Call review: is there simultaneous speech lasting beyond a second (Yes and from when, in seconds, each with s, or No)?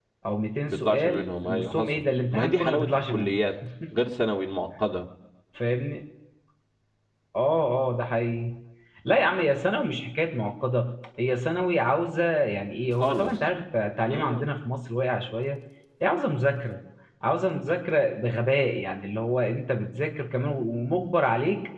Yes, from 0.7 s